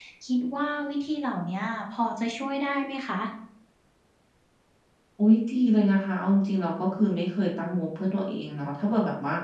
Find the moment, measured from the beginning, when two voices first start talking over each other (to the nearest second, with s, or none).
none